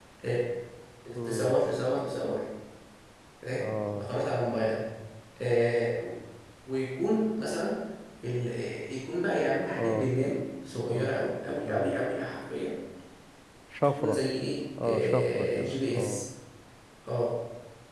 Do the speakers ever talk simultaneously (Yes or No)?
Yes